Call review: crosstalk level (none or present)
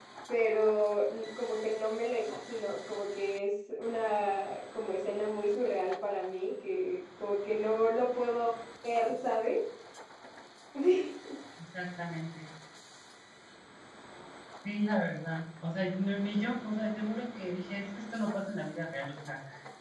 none